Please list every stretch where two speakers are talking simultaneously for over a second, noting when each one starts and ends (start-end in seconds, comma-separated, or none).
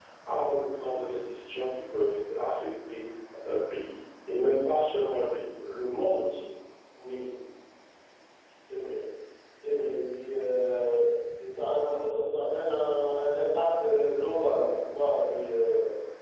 none